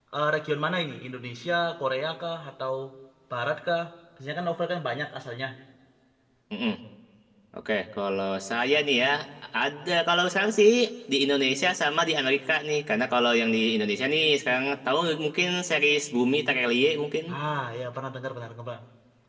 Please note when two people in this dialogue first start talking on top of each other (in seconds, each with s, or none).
none